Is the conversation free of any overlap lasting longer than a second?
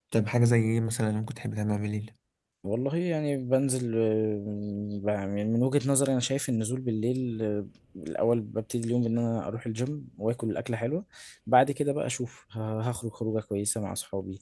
Yes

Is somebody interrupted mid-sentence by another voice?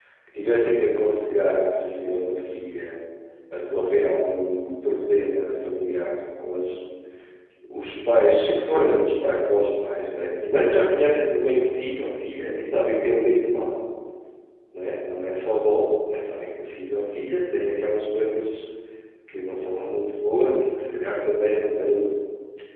No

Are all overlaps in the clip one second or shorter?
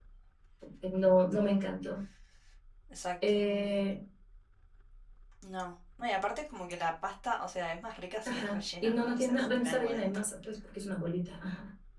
No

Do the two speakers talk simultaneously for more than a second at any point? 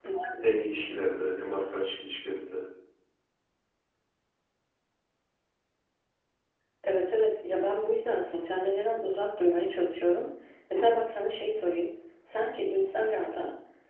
No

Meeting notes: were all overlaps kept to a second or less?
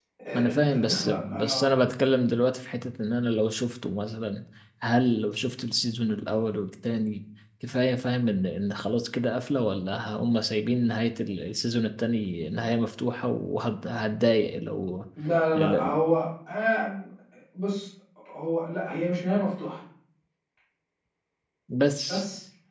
No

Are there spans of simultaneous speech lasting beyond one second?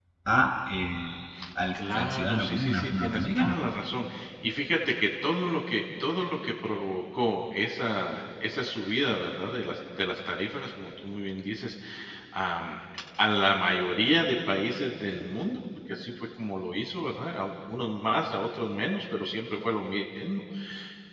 Yes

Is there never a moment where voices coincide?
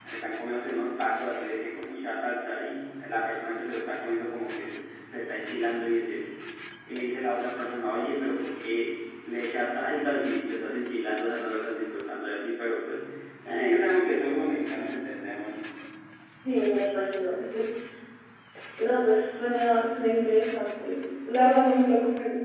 Yes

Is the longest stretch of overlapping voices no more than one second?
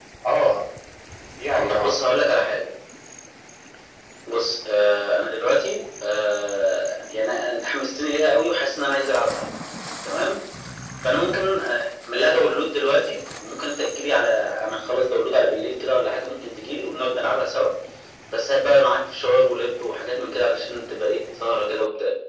Yes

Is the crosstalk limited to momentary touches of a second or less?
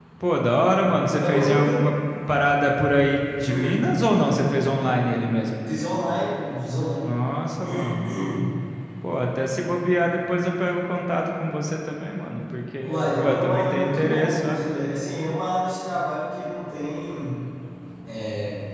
No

